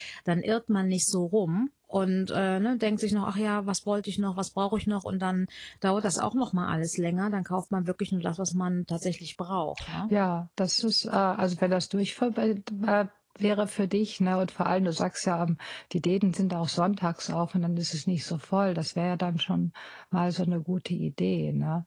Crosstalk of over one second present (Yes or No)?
No